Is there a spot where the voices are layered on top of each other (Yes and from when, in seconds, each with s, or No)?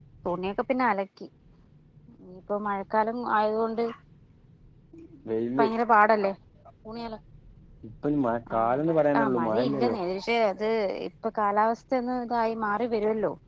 Yes, from 8.5 s